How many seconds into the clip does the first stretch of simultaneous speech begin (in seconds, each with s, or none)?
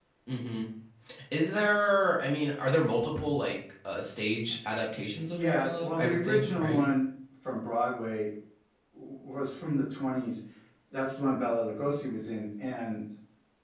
5.2 s